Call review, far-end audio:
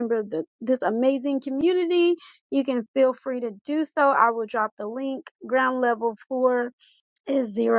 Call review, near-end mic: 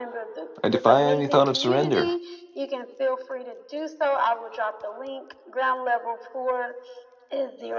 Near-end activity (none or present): present